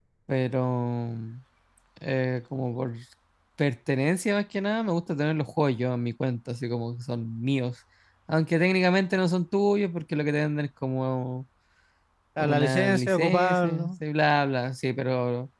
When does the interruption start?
12.4 s

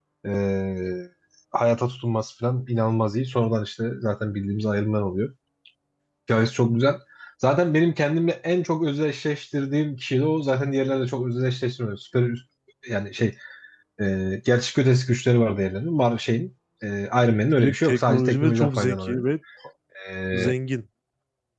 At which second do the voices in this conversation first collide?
17.6 s

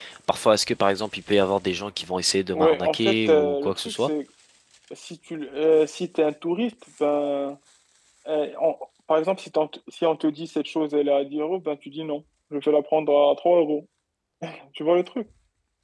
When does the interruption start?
2.5 s

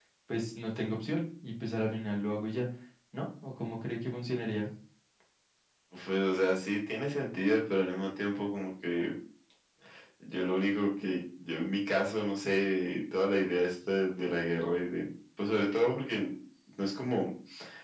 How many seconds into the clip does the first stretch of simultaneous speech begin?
none

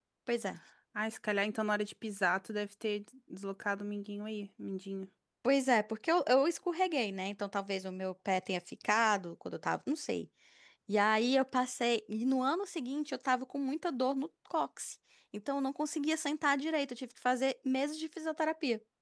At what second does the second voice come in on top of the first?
none

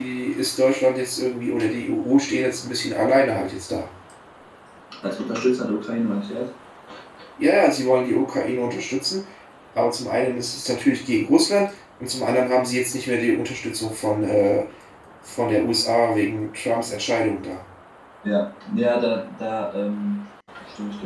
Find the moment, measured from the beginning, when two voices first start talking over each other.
none

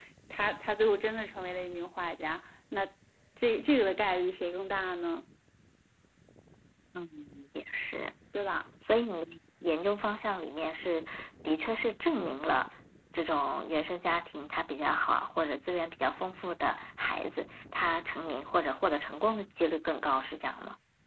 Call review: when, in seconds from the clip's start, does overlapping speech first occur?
none

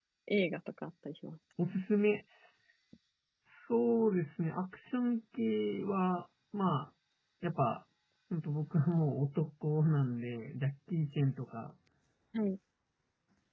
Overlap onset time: none

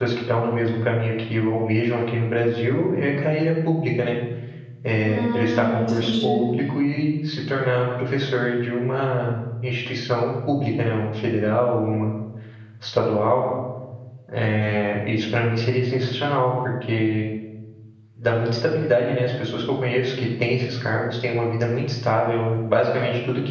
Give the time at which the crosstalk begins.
5.0 s

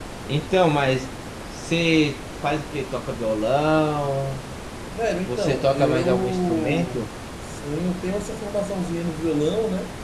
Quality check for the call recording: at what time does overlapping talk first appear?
5.2 s

